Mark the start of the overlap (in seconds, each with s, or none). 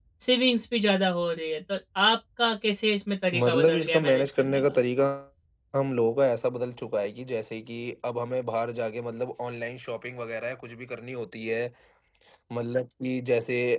3.3 s